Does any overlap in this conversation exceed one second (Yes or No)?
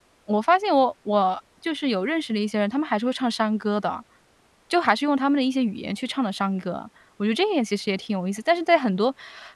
No